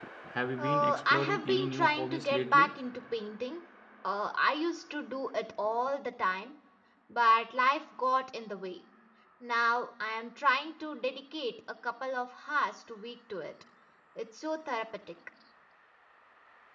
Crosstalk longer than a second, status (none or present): present